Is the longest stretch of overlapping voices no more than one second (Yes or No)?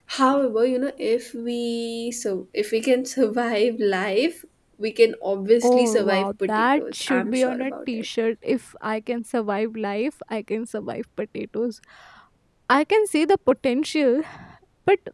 No